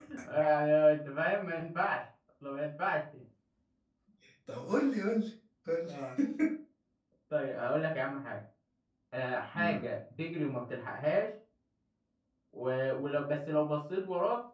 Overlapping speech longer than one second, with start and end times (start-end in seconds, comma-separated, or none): none